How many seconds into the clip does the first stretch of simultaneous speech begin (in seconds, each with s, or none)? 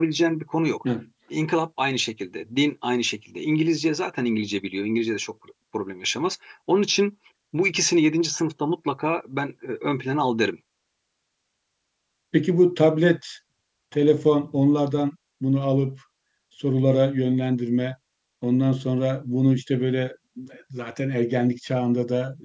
none